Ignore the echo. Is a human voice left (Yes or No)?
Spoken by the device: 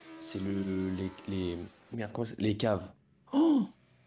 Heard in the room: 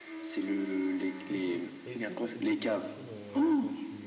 Yes